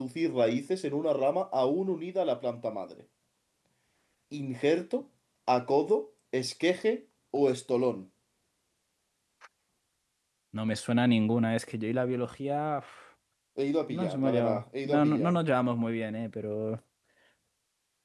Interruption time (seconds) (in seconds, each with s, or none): 13.9 s